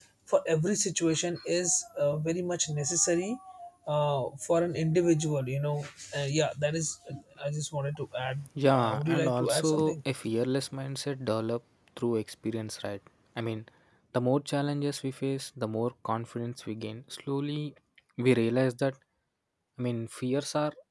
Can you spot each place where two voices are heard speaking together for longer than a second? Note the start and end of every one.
8.7-9.9

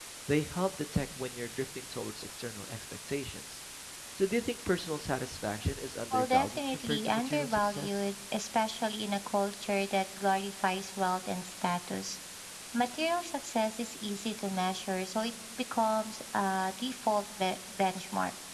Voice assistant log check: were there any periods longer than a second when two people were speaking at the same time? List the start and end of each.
6.1-8.0

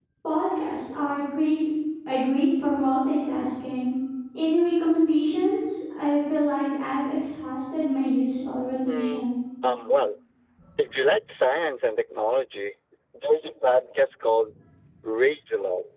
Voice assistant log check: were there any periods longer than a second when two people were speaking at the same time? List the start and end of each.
none

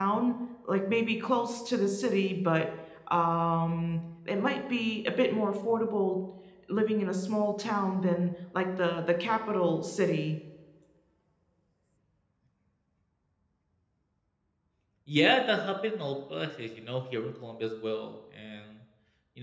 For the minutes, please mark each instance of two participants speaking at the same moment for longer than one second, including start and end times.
none

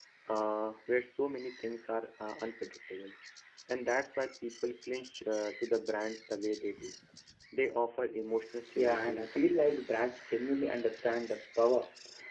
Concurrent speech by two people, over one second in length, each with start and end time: 8.8-10.0

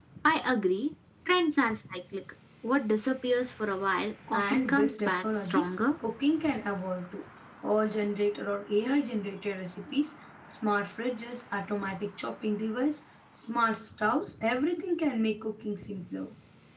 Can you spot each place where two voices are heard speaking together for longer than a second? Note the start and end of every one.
4.3-5.7

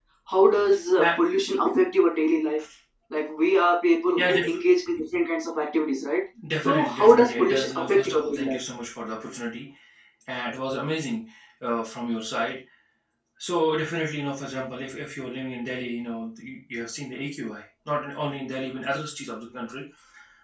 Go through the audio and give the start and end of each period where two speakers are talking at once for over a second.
6.6-8.6

